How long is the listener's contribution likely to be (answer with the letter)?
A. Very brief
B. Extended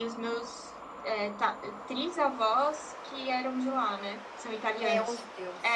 B